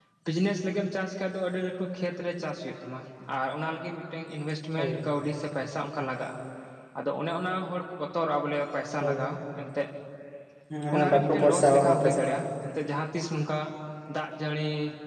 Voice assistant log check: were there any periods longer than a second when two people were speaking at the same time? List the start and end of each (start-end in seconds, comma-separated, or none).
10.9-12.3